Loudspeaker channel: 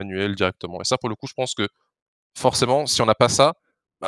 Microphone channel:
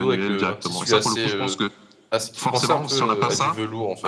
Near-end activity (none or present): present